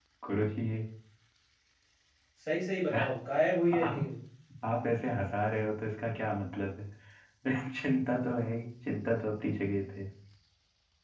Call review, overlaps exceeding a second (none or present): none